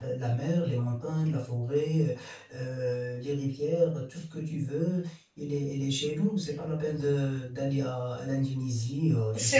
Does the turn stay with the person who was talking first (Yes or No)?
No